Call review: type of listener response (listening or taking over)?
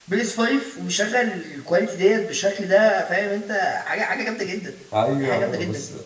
taking over